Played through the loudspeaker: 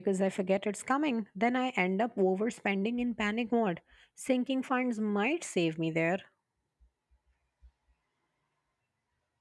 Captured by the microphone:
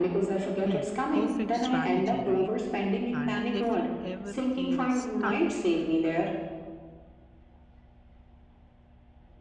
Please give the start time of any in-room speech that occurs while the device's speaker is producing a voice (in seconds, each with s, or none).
0.6 s